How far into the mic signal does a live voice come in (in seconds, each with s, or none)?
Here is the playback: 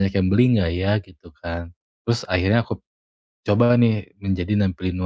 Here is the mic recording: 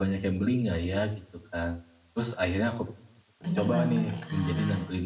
3.4 s